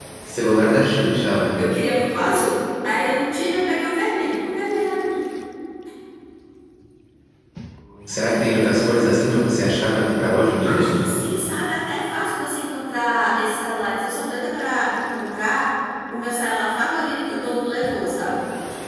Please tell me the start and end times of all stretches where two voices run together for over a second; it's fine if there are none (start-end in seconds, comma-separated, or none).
none